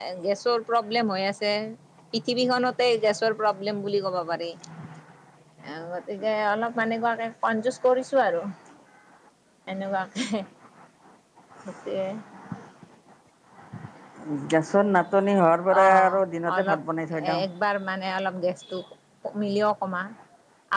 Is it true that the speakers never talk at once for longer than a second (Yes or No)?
Yes